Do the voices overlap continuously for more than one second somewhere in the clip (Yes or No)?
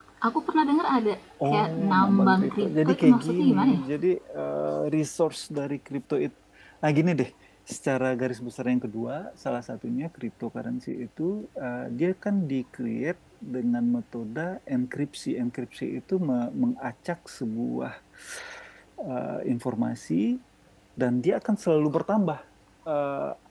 Yes